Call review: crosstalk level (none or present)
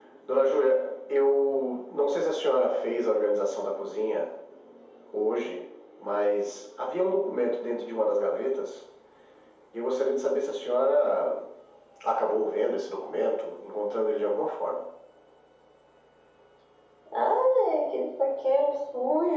none